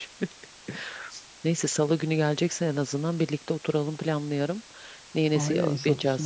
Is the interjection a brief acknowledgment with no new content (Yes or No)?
No